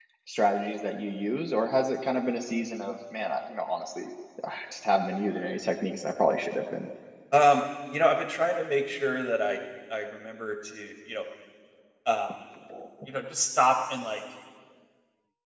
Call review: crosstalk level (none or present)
none